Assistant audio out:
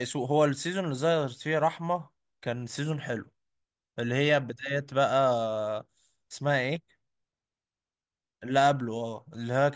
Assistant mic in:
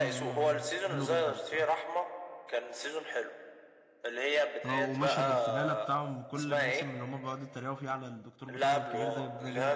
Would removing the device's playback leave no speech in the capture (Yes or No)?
No